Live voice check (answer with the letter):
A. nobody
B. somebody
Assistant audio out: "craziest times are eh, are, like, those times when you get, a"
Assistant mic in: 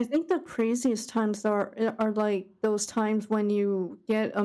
A